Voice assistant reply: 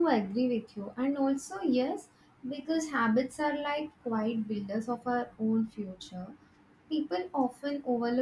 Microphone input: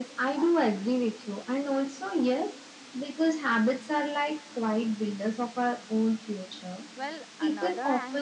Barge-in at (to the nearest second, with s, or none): 7 s